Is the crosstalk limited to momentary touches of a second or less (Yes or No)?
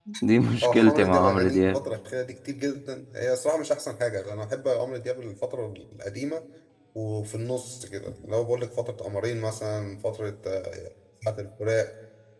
No